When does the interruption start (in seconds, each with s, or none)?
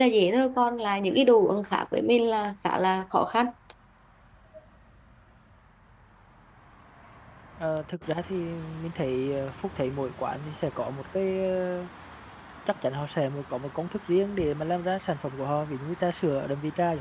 none